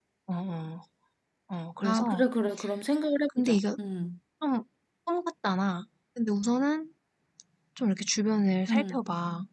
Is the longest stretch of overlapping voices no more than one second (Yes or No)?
Yes